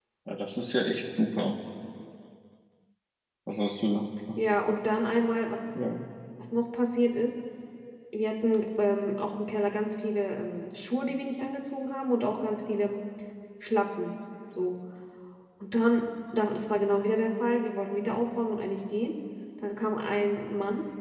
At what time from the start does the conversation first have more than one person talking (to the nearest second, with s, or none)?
none